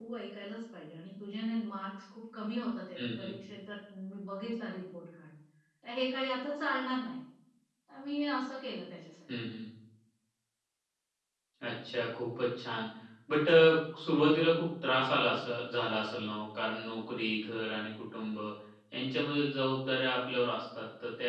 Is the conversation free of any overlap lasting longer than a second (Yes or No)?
Yes